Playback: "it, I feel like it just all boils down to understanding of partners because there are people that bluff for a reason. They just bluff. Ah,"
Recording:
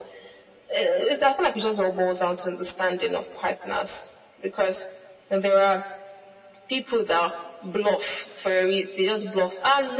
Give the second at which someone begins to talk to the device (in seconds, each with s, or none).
none